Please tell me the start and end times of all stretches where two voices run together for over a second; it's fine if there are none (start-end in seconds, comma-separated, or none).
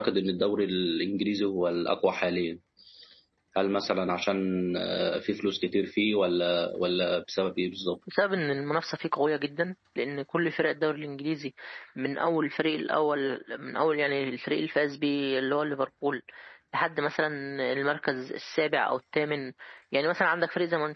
none